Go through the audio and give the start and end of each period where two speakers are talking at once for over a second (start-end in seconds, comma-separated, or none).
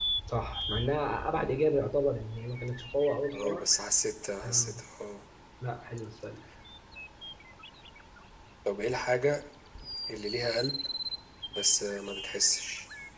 none